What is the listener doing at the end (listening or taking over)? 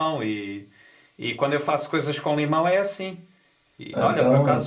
listening